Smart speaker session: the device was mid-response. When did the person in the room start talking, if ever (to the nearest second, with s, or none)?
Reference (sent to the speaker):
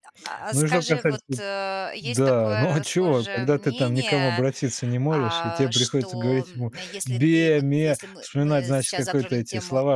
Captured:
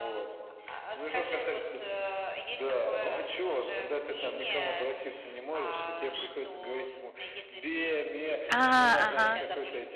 8 s